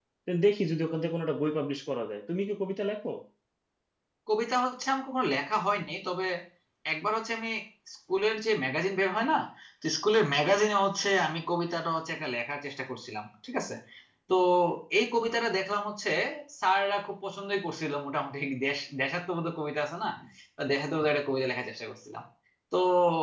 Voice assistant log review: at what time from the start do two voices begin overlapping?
none

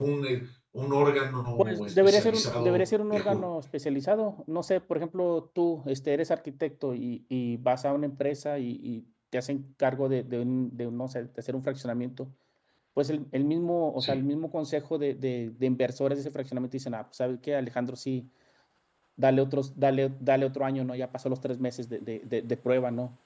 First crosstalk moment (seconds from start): 1.6 s

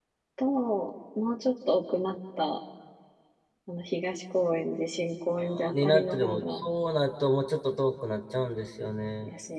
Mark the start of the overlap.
5.4 s

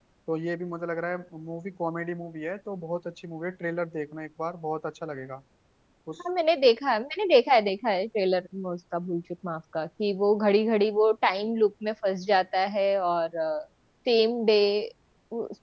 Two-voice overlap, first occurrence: none

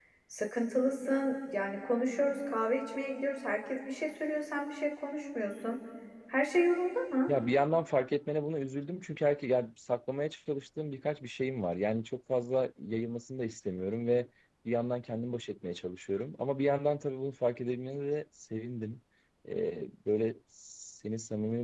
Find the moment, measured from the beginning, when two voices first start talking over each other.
none

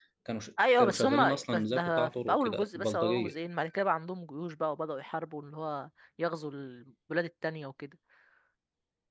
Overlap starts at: 0.8 s

